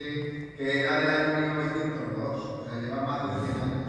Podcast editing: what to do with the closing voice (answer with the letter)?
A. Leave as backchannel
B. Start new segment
A